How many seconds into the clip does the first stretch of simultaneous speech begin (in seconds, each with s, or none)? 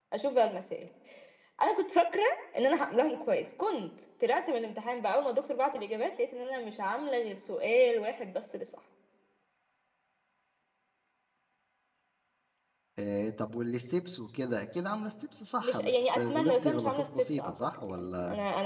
15.6 s